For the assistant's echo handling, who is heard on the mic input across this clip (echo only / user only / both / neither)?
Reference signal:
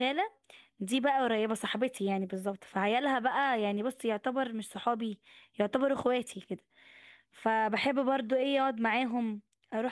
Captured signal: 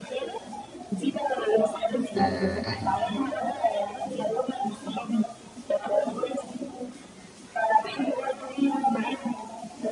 both